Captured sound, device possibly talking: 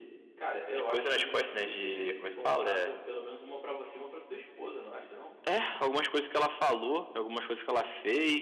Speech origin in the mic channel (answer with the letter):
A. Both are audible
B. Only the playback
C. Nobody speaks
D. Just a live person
A